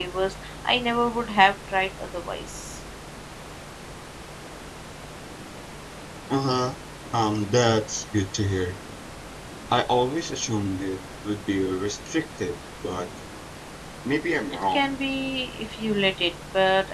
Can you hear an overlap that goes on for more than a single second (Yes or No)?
No